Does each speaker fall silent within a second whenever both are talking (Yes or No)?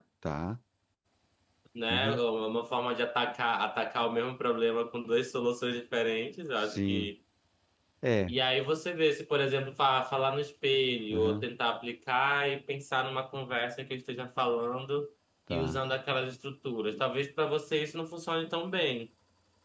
Yes